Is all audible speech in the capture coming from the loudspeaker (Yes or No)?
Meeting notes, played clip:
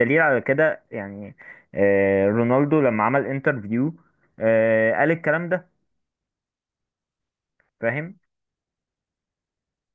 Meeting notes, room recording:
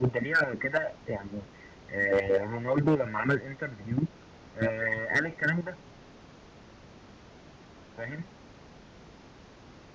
Yes